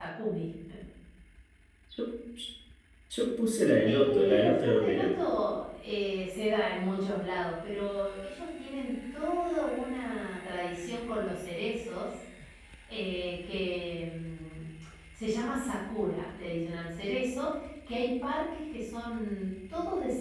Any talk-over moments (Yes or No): Yes